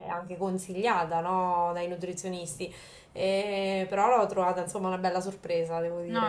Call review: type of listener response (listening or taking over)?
taking over